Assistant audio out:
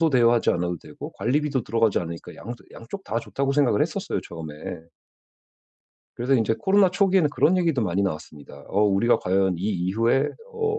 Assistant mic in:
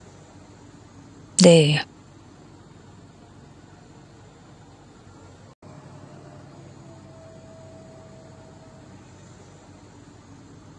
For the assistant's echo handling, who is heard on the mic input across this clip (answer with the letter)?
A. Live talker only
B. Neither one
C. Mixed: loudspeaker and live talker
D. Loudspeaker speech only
A